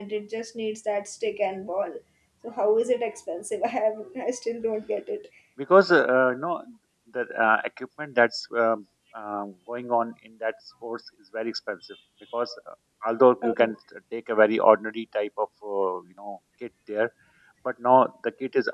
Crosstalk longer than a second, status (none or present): none